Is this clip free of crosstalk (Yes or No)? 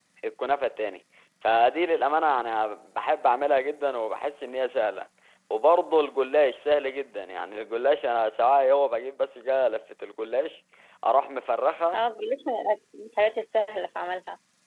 Yes